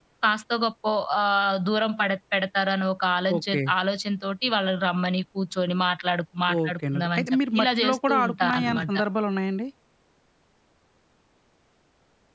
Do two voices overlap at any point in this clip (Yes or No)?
Yes